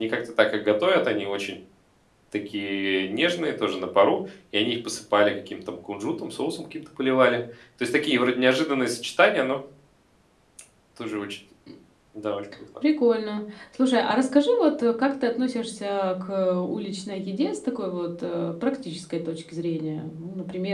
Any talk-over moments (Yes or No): No